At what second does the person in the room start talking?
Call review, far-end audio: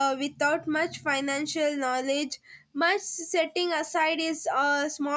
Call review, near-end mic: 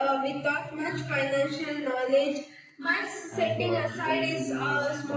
3.3 s

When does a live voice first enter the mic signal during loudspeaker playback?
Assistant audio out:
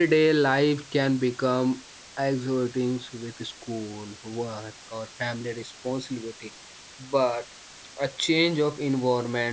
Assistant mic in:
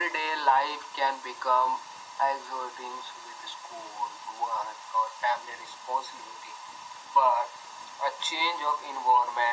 none

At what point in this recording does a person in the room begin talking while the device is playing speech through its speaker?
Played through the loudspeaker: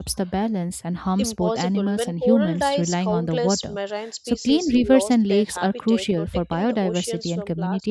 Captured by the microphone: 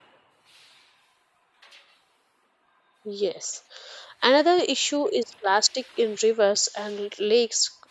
3.1 s

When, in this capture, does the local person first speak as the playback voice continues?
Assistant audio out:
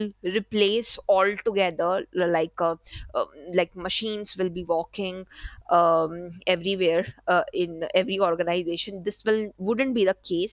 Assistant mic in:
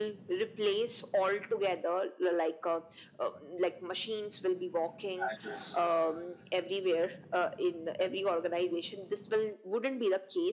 5.1 s

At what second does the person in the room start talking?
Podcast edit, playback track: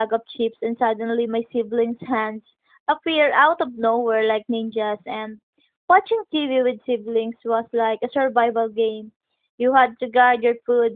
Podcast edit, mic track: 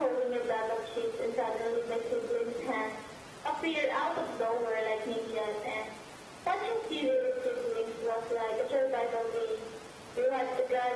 none

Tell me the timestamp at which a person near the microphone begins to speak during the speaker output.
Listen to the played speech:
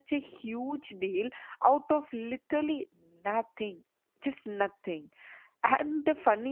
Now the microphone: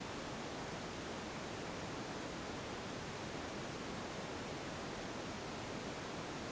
none

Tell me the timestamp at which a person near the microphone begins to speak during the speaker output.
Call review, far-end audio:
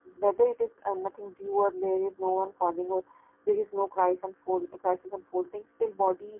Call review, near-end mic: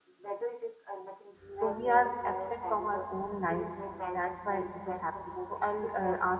1.5 s

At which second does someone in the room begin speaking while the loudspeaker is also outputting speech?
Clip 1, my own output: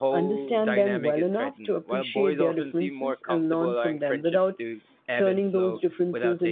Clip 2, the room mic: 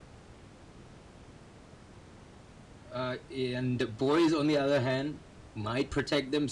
2.9 s

